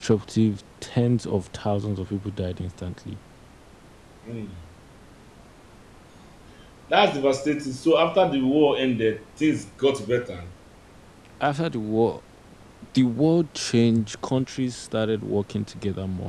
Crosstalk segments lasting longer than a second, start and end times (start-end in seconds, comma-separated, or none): none